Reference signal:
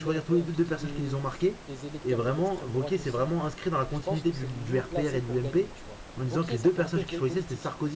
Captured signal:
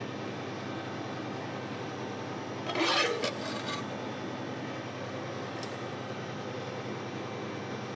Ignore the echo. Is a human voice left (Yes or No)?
No